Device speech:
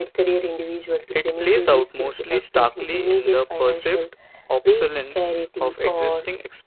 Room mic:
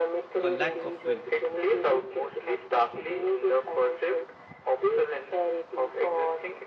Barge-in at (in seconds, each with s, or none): 0.4 s